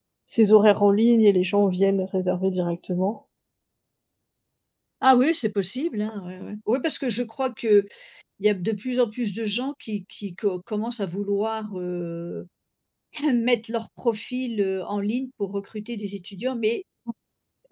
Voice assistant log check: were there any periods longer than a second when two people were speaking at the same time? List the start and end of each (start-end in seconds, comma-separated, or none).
none